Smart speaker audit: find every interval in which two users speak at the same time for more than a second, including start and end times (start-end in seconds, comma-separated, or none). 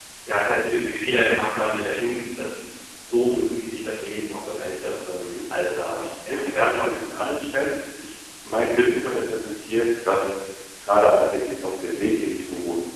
6.0-7.4